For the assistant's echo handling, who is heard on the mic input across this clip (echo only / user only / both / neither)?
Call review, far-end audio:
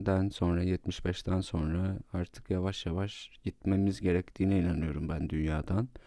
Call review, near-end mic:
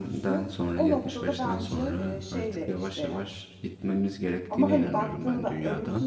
both